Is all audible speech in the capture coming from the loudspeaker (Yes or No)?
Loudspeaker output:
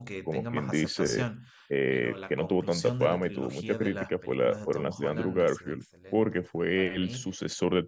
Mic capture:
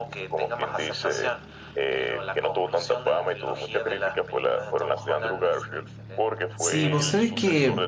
No